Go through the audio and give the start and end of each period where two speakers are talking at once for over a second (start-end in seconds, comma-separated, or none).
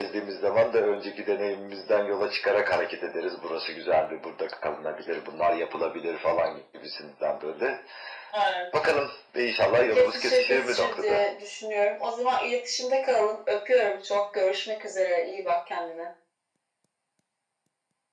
9.9-11.2